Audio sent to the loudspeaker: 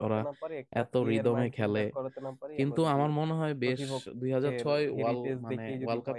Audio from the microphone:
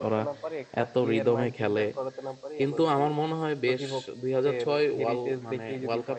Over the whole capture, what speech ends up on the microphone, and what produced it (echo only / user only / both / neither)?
echo only